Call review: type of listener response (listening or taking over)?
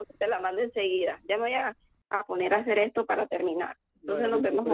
taking over